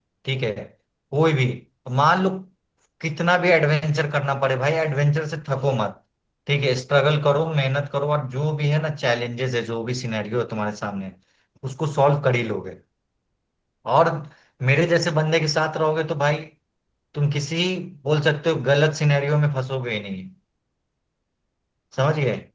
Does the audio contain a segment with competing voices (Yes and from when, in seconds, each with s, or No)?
No